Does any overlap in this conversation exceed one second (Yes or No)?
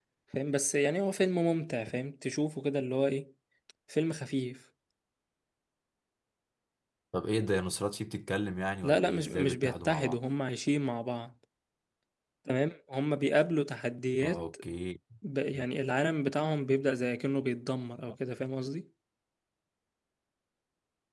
Yes